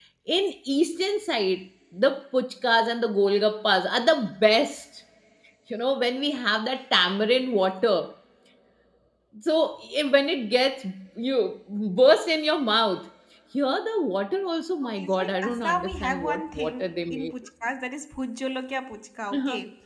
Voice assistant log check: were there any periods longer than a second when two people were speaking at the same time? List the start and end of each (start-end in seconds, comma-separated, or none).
14.8-16.7